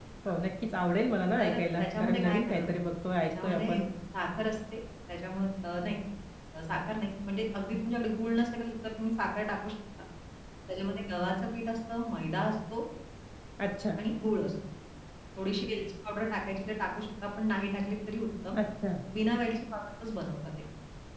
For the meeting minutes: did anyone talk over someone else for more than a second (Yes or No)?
Yes